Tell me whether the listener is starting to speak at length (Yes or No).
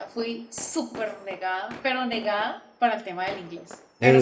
No